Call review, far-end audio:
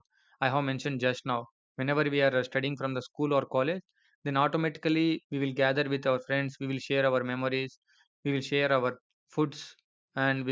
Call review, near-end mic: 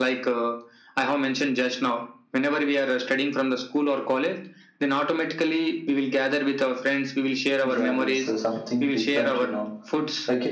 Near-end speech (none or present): present